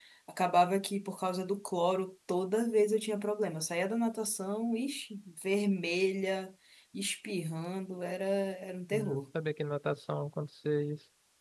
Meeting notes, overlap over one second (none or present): none